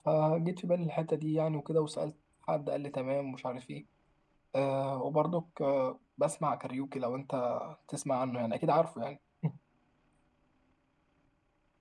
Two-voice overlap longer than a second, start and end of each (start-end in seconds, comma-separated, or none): none